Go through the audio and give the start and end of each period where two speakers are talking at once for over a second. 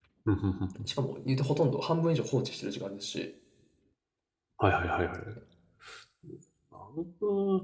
none

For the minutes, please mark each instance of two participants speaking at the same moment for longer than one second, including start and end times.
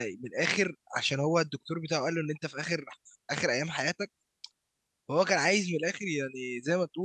none

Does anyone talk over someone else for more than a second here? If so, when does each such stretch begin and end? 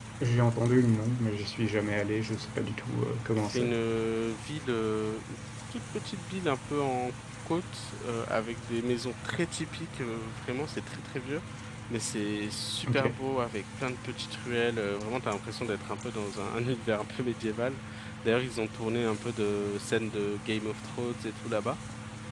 none

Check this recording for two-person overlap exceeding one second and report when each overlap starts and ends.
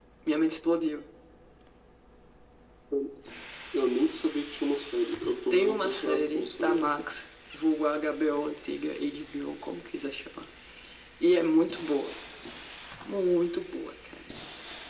5.5-6.8

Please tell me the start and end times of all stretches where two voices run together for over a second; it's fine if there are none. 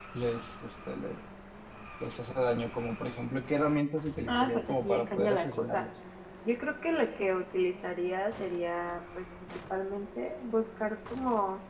4.3-5.9

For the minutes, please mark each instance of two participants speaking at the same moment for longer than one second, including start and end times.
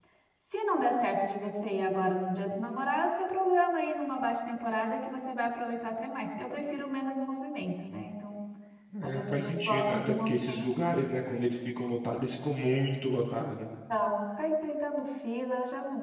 9.0-10.9

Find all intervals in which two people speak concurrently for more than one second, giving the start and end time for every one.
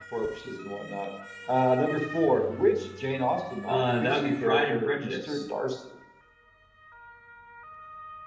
3.6-5.4

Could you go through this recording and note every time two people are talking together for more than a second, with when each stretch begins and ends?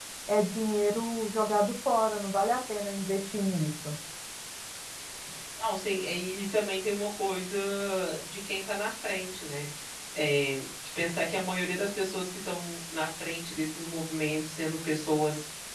none

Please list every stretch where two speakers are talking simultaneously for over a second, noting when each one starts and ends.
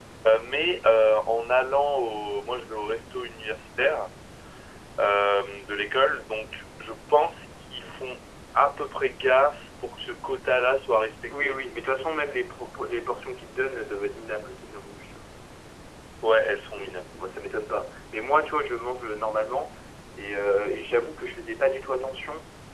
none

